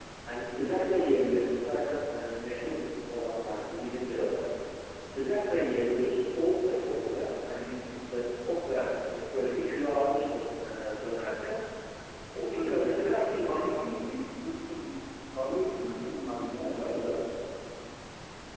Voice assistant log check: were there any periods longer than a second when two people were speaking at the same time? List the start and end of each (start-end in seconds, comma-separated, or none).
12.5-13.9